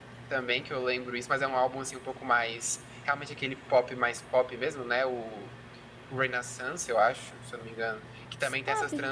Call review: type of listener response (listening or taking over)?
listening